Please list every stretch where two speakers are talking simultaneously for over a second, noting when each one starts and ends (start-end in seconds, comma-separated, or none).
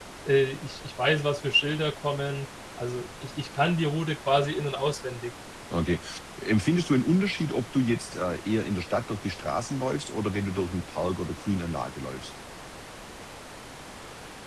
none